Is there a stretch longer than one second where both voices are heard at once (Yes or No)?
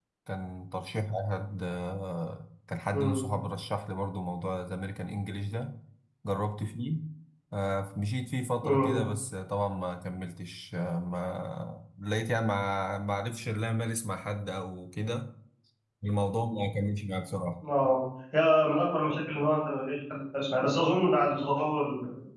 No